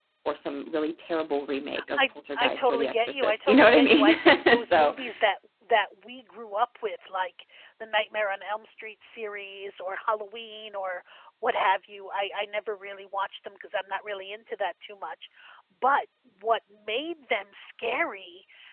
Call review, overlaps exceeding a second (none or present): present